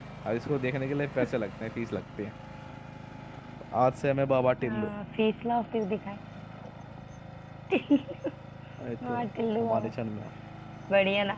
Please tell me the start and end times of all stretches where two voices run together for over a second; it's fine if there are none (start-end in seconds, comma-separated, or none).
none